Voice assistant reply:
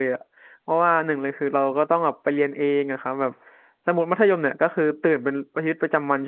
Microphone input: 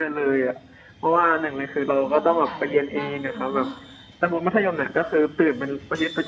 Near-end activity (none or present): present